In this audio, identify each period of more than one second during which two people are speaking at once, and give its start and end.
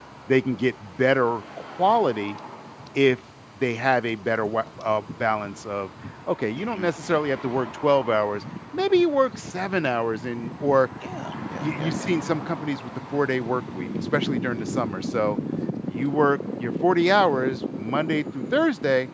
none

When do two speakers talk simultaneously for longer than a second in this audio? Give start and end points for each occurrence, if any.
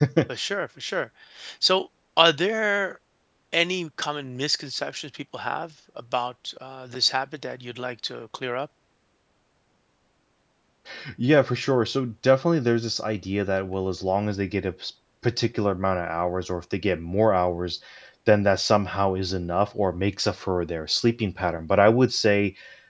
none

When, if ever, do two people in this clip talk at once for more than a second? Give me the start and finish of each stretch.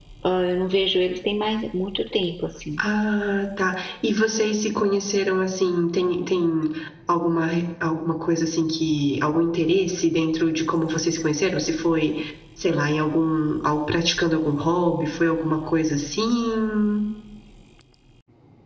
none

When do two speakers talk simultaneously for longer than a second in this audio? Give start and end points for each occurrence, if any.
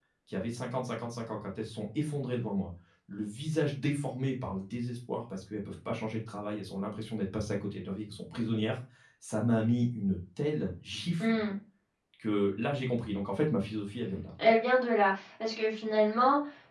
none

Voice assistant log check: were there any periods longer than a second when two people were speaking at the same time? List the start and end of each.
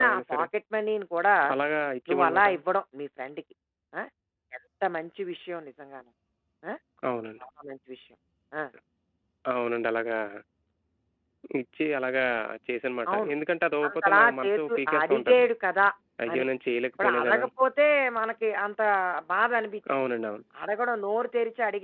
13.9-15.4

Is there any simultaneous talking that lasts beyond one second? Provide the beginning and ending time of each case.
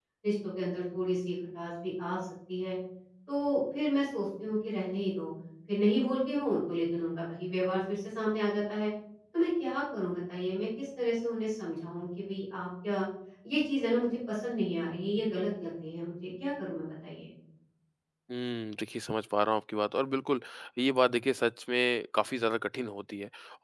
none

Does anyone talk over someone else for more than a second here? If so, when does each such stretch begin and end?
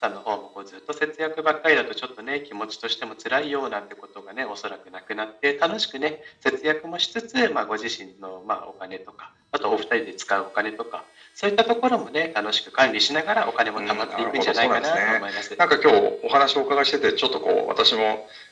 13.8-15.4

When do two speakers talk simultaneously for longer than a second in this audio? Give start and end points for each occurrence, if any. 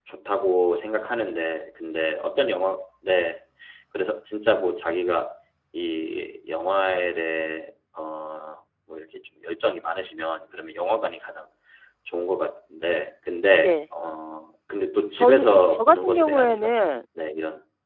15.2-16.8

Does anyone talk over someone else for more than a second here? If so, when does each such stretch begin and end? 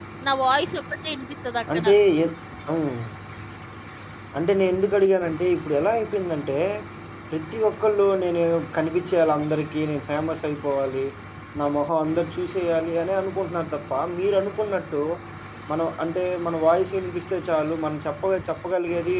none

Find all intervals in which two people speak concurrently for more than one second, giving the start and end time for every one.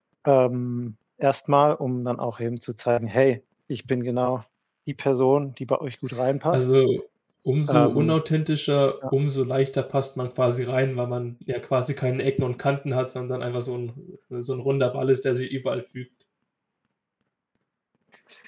none

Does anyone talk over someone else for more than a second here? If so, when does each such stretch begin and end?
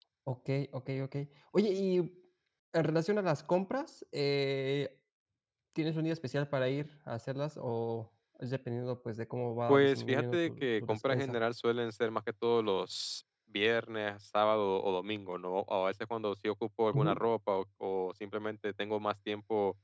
9.7-11.4

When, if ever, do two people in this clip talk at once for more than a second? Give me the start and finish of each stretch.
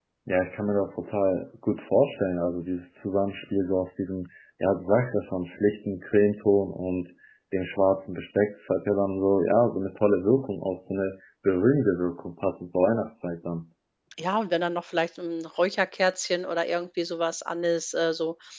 none

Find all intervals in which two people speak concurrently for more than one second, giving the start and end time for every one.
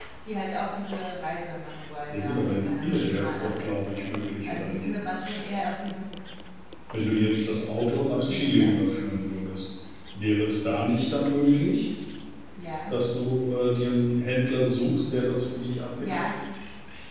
2.1-3.5

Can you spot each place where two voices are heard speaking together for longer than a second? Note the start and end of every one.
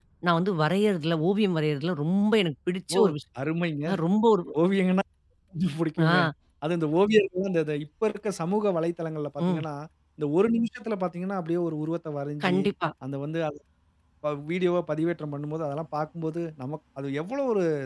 none

